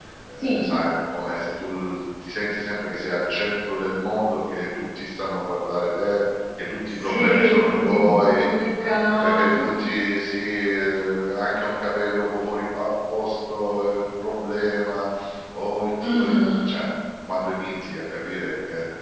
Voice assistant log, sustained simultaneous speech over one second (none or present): present